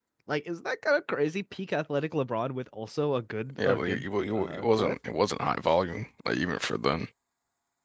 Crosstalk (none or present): present